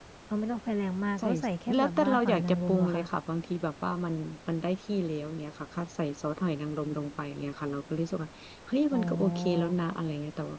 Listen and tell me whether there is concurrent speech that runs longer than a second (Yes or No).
Yes